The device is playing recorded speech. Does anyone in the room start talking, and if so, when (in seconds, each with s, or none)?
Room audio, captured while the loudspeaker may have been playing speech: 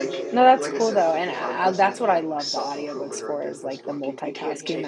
0.3 s